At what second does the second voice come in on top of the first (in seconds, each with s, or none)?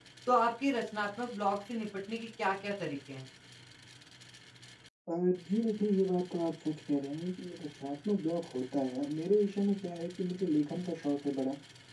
none